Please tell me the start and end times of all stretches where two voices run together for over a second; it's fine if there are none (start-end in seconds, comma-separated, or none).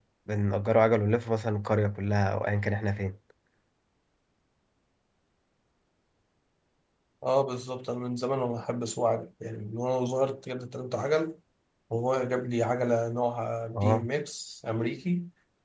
none